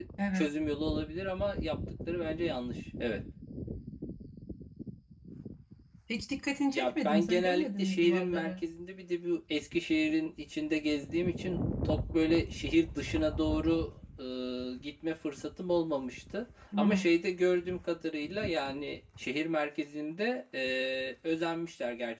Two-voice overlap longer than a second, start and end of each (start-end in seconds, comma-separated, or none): 6.7-8.6